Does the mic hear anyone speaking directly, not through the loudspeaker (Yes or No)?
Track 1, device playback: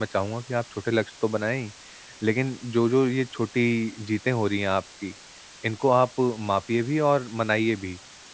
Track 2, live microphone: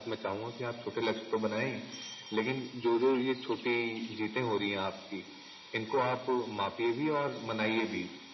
No